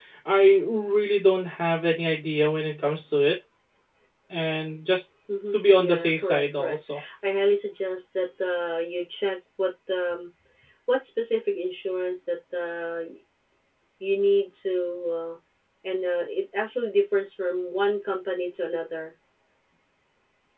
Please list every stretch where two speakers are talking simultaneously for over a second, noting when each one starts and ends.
5.5-6.8

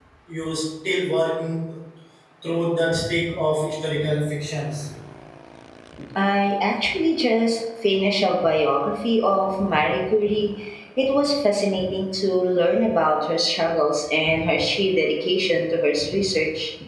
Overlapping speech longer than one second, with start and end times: none

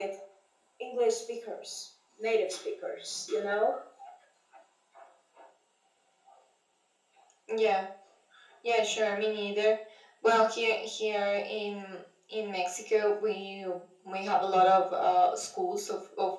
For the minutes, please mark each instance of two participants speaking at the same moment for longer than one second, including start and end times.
none

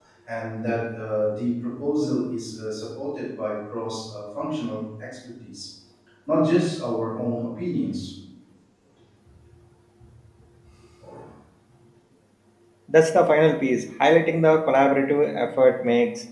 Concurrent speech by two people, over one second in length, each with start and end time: none

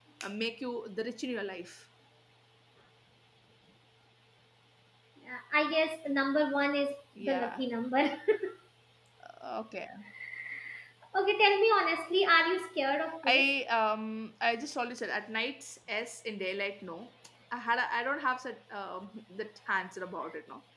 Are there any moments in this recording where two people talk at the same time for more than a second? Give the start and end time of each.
none

